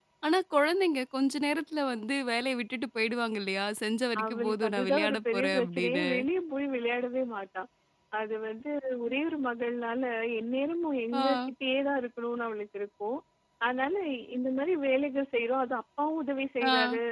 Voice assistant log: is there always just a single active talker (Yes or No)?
No